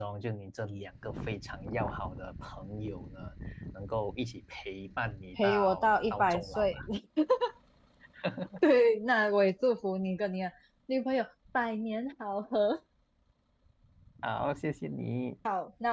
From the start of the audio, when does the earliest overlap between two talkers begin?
5 s

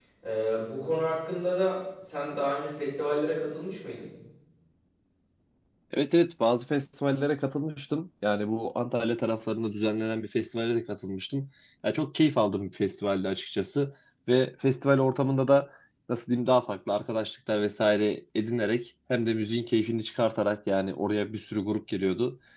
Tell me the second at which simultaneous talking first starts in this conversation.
none

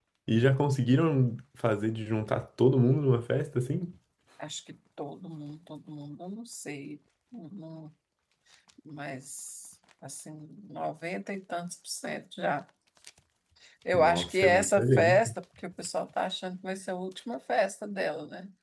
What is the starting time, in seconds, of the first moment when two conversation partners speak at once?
14 s

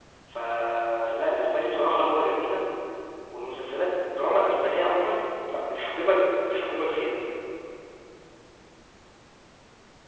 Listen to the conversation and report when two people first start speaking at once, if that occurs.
none

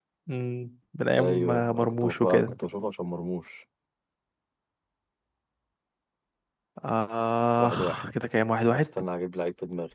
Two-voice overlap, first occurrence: 1 s

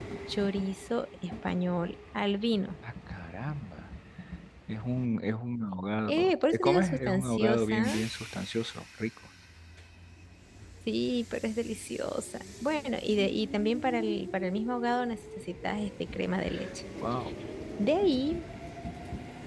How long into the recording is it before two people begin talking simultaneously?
6 s

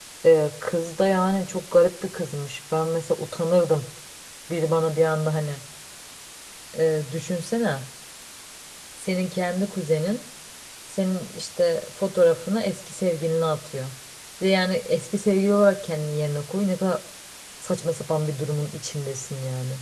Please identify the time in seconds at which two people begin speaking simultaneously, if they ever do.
none

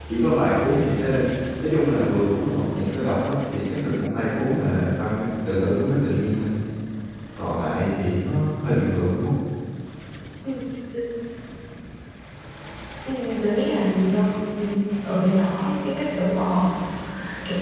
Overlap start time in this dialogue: none

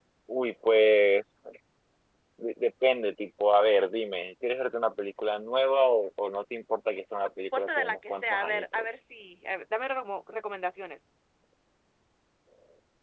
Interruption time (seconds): 8 s

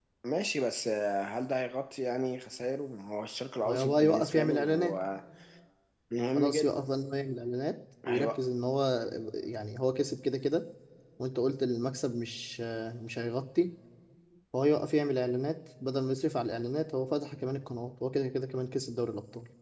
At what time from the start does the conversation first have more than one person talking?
4 s

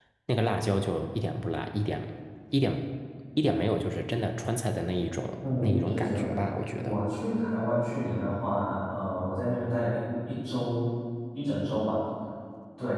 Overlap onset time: 5 s

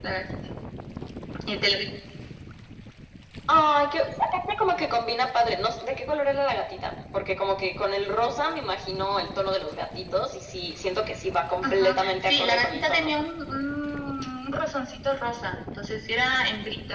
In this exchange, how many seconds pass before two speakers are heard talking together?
12 s

